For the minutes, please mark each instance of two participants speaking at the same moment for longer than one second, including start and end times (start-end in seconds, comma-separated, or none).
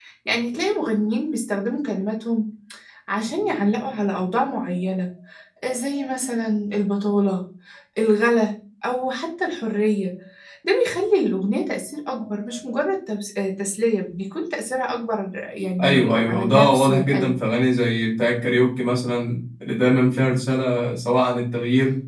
15.8-17.3